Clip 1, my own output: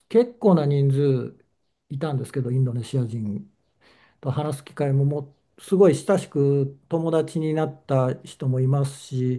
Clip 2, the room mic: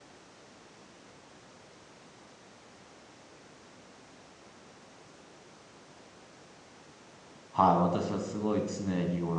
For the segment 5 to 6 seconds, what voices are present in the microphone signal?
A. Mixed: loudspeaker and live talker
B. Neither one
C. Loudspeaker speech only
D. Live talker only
B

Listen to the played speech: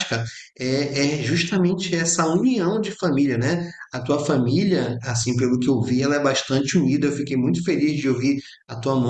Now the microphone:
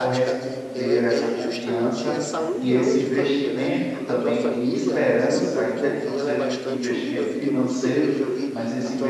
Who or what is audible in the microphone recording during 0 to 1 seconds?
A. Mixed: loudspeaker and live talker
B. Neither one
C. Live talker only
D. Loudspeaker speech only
A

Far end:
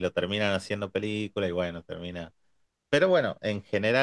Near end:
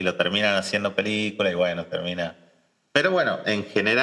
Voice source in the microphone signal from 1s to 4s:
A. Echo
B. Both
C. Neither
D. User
A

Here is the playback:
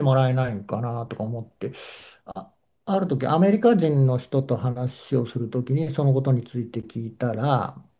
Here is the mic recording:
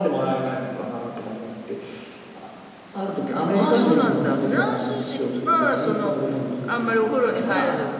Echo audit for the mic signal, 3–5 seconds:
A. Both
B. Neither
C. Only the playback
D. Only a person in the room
A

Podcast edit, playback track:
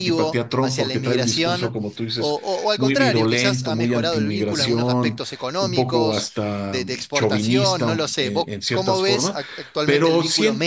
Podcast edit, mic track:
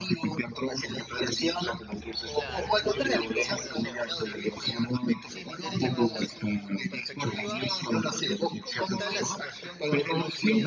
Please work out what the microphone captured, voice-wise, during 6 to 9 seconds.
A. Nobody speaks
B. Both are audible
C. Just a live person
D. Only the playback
B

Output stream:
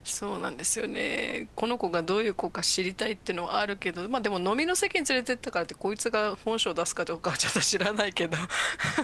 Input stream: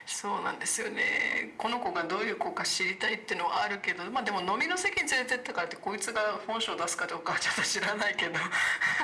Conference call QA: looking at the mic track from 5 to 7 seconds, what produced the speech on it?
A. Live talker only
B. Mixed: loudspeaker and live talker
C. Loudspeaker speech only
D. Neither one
C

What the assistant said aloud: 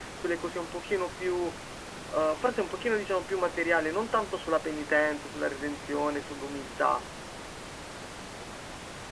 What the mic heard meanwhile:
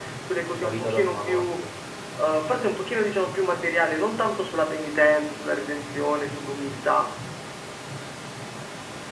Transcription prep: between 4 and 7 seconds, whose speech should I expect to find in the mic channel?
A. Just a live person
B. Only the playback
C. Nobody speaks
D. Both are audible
B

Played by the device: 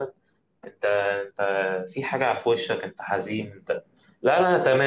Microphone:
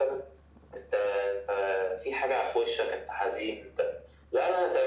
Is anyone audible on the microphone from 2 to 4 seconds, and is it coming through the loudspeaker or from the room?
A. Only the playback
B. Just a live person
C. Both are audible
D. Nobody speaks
A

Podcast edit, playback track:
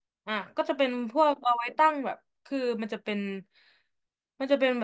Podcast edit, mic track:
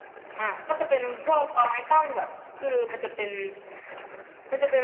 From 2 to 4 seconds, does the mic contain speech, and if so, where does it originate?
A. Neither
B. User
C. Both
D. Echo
D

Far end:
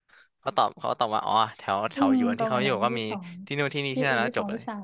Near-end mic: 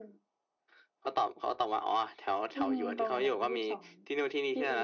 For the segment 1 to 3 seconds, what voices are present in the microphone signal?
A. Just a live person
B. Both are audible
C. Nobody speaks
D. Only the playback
D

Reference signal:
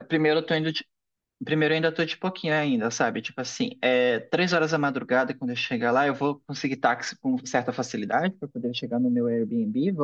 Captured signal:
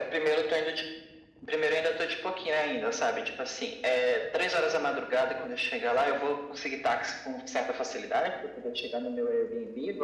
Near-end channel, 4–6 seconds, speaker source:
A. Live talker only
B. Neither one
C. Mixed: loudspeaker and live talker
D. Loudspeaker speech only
C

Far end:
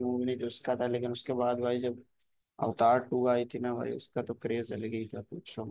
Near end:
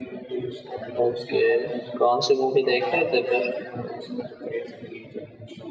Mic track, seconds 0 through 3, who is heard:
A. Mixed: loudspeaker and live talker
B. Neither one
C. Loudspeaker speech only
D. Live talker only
A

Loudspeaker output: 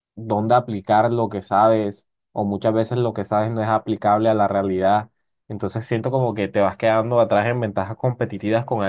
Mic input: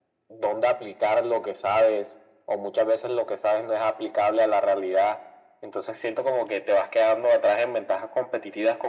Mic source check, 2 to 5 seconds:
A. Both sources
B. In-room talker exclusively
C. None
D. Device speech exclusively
D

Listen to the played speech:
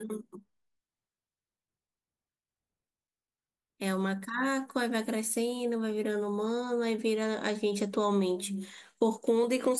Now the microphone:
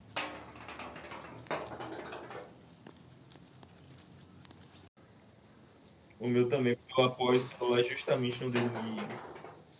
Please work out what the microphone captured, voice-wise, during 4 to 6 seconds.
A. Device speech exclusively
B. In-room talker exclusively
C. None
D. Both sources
C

